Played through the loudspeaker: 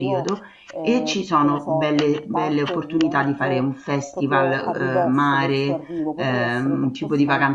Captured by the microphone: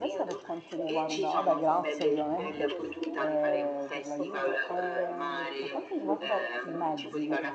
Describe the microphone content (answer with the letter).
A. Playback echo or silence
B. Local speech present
B